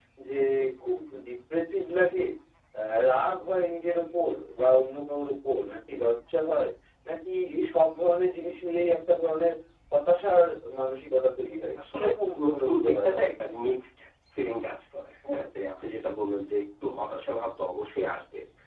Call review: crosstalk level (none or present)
present